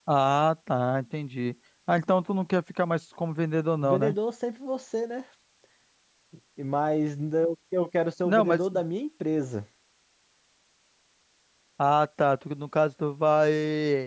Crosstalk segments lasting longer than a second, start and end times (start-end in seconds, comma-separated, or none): none